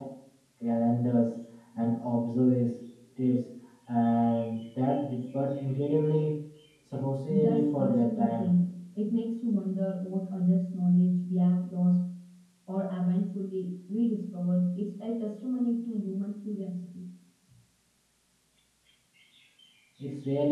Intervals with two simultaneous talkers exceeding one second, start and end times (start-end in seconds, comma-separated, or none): 7.3-8.5